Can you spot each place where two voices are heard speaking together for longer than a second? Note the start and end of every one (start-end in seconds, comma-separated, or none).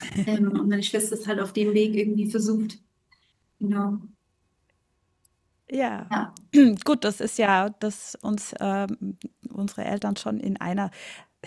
none